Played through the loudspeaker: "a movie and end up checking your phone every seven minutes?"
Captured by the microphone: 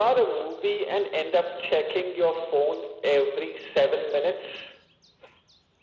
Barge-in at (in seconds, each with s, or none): none